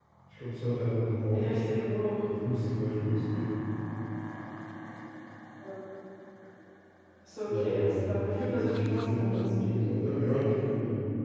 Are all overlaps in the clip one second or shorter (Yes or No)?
No